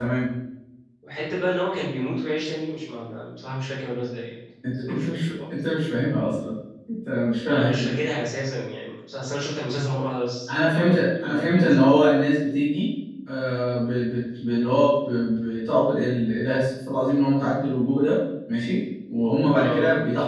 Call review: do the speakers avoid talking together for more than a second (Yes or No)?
No